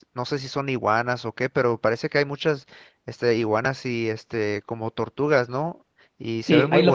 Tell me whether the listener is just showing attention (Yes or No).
No